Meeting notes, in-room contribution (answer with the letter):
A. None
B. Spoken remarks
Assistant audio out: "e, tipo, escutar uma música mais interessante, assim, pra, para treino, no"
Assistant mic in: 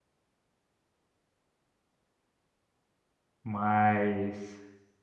B